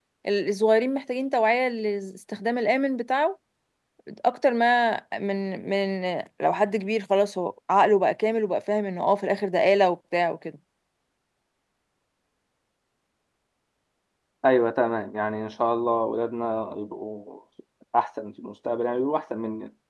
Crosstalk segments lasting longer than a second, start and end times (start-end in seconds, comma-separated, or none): none